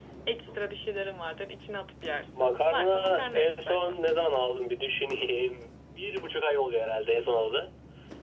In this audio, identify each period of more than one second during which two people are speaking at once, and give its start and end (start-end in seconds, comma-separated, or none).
2.3-4.0